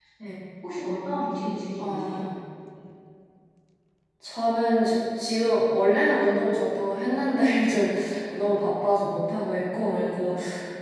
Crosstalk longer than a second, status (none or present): none